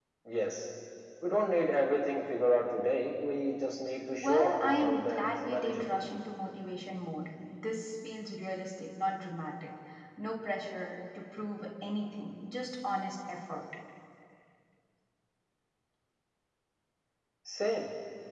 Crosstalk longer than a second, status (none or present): present